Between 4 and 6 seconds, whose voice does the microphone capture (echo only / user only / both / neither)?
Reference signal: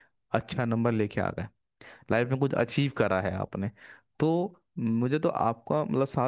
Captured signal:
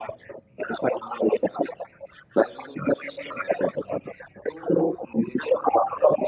echo only